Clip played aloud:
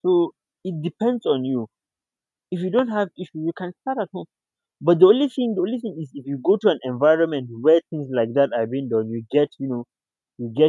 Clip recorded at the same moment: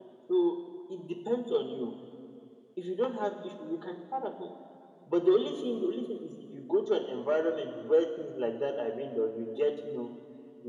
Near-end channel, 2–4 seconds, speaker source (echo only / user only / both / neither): echo only